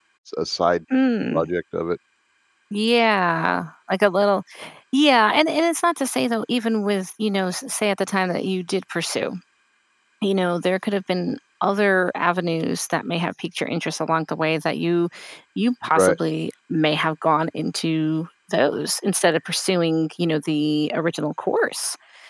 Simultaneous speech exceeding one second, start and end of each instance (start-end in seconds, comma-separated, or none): none